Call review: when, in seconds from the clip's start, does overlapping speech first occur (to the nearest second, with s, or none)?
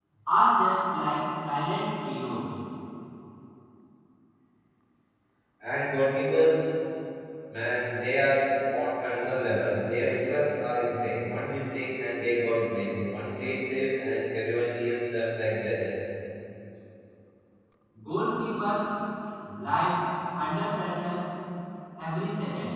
none